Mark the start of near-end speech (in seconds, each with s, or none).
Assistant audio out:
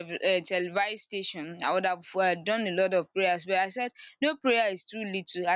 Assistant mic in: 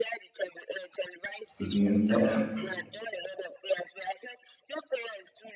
1.6 s